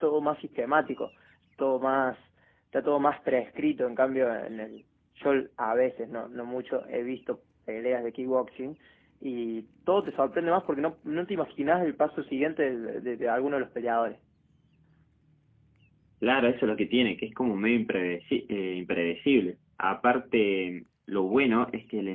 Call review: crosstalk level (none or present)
none